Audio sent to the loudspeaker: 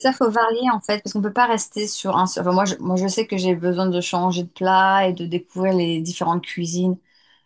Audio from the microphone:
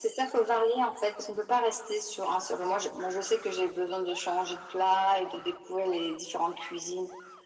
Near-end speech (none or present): none